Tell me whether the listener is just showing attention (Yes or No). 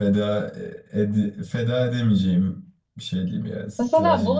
No